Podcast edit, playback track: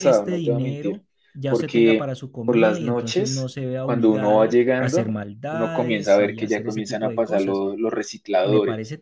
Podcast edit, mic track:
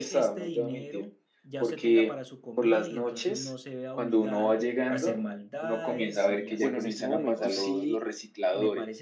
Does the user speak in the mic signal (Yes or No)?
Yes